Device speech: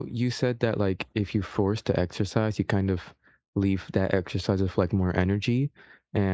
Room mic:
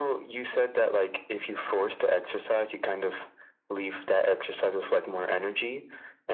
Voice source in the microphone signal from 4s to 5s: echo only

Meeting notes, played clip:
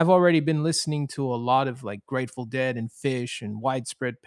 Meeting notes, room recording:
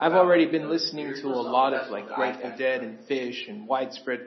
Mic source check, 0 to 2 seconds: both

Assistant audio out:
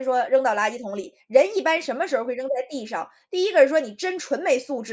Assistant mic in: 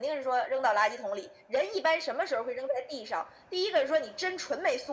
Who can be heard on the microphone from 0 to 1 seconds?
echo only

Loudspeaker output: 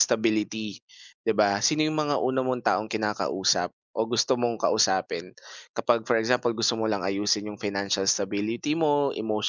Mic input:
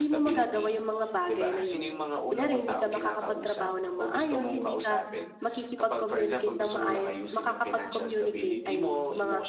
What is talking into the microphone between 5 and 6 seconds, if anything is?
both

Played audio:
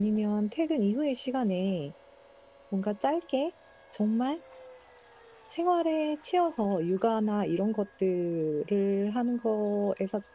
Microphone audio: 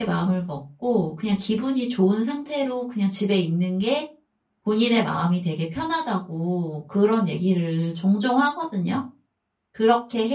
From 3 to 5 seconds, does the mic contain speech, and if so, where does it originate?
user only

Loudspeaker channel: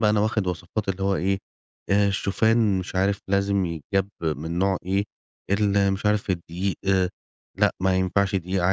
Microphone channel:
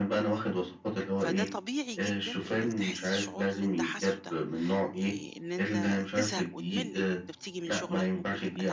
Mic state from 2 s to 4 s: both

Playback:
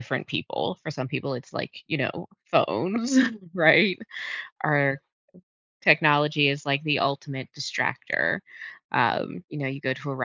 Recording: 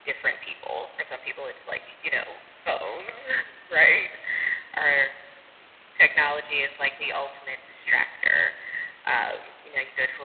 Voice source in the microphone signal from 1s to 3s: echo only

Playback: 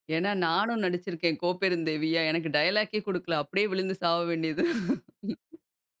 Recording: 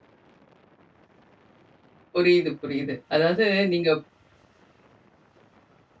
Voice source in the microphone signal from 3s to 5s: user only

